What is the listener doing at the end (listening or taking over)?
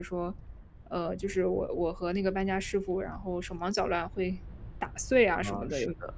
taking over